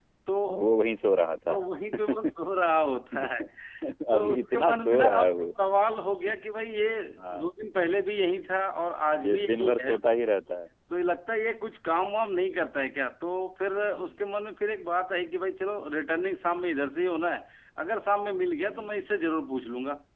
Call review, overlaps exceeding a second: present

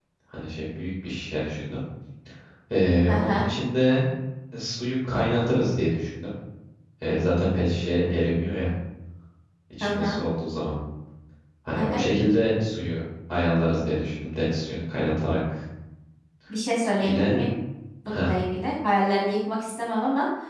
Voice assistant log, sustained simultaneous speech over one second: none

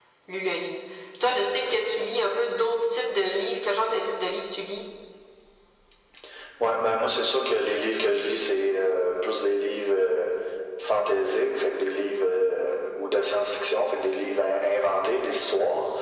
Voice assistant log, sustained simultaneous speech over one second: none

